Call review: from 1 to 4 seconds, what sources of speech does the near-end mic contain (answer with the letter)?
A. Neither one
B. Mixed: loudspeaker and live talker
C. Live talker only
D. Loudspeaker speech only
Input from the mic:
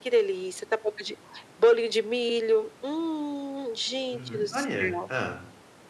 D